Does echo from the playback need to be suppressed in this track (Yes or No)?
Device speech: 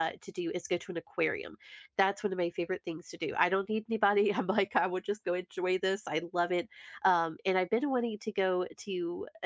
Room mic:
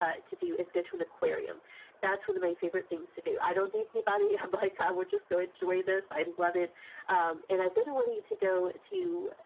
Yes